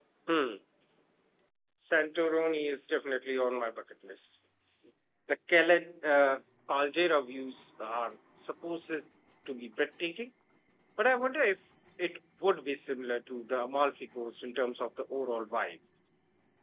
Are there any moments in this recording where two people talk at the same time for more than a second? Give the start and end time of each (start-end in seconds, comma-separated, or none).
none